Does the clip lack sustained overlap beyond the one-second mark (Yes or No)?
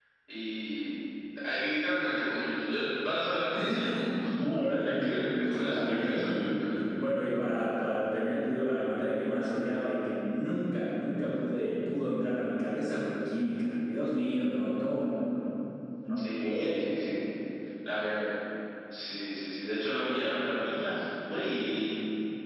No